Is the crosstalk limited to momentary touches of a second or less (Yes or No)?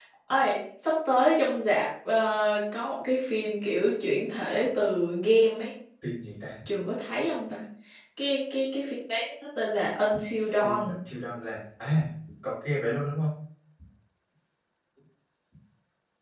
Yes